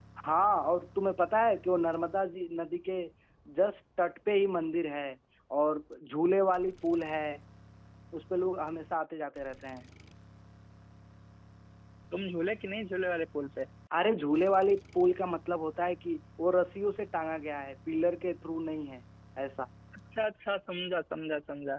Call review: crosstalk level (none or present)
none